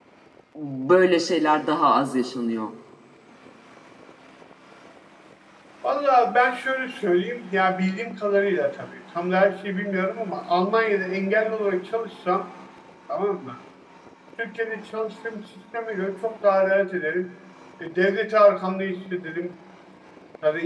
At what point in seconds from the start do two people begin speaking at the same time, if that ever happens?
none

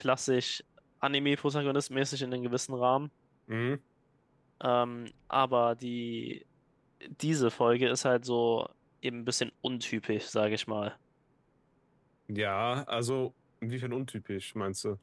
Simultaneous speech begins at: none

